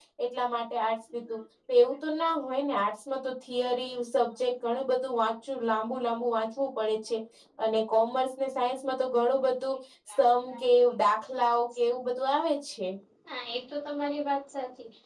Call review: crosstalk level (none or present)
none